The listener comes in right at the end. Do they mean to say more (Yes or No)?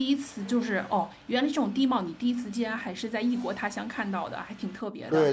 Yes